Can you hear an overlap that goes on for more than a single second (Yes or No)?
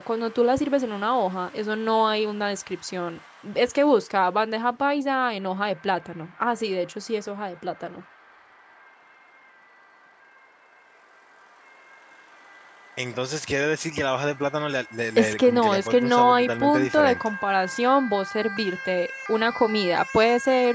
Yes